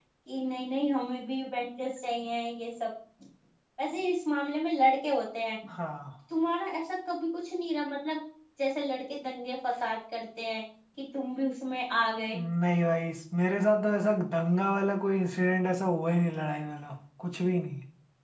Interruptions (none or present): none